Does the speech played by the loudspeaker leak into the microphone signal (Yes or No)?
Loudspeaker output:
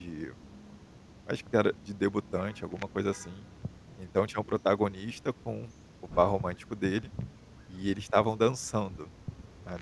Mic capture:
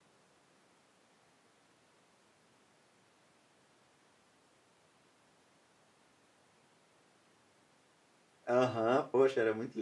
No